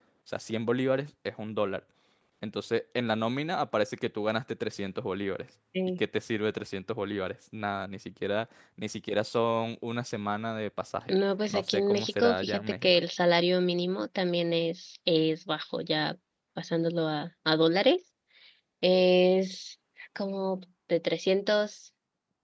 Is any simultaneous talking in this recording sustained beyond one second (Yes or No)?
Yes